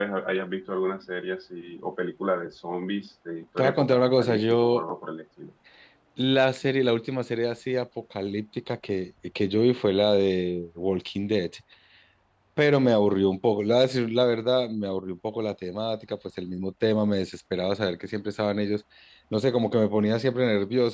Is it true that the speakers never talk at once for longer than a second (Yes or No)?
No